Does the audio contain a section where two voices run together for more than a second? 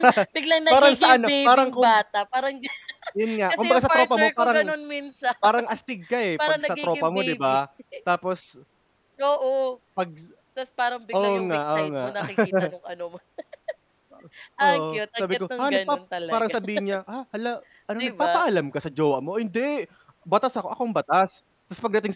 Yes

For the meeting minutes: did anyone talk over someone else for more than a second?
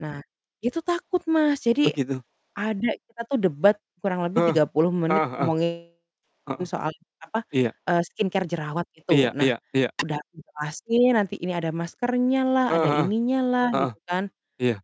No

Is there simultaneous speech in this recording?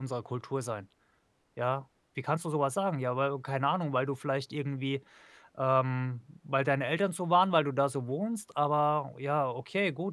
No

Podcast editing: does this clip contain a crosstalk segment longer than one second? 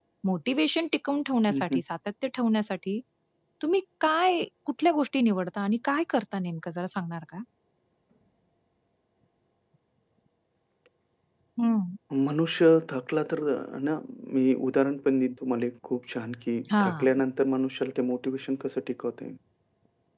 No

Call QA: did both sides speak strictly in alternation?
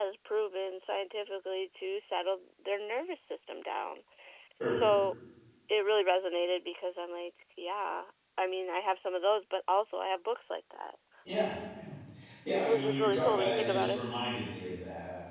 No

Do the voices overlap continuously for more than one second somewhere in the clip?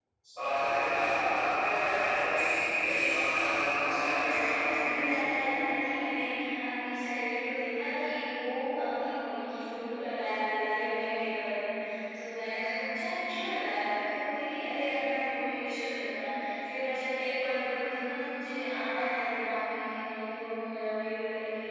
Yes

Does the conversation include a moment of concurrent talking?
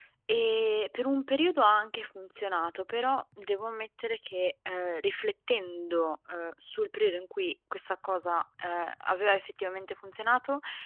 No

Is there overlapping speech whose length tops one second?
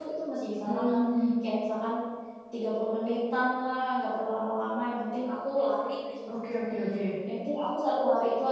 No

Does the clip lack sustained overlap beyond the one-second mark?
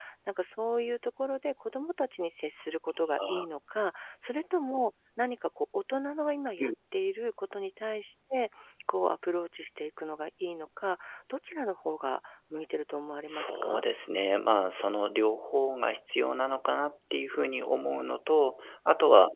Yes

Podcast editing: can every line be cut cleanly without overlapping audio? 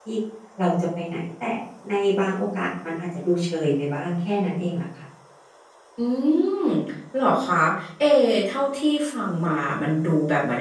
Yes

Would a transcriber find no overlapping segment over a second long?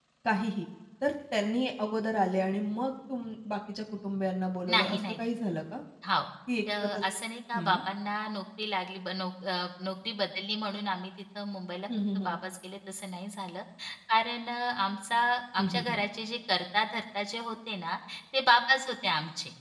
Yes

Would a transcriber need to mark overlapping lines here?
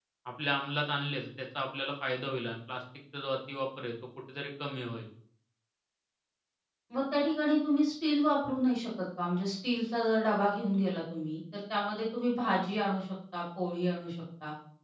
No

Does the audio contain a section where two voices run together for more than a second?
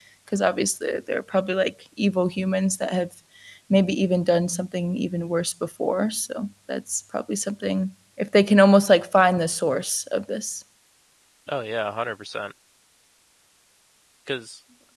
No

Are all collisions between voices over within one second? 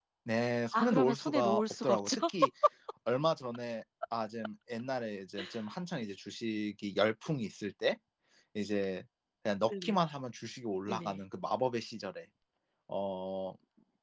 No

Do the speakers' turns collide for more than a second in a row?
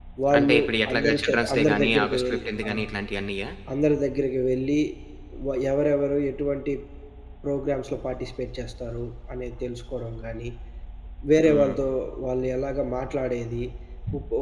Yes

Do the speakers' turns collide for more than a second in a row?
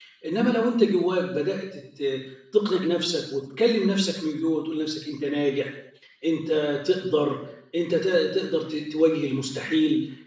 No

